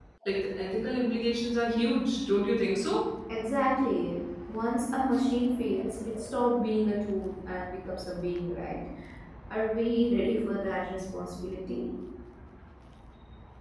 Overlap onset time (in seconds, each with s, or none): none